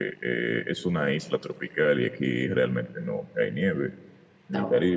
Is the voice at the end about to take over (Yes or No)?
No